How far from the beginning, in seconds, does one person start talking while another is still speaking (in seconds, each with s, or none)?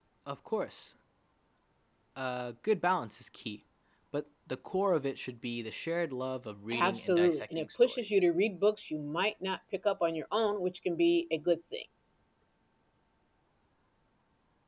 6.7 s